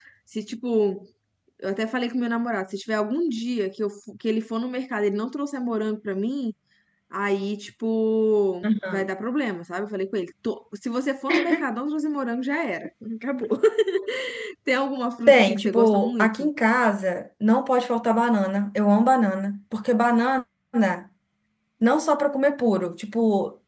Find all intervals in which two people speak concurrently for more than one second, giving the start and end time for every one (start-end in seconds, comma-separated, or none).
15.3-16.5